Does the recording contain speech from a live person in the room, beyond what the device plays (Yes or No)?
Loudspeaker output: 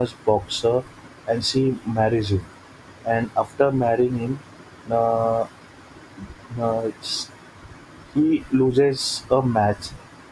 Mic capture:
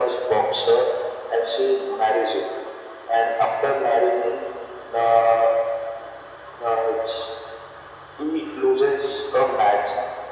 No